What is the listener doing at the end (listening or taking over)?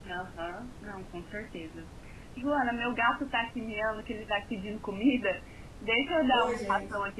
listening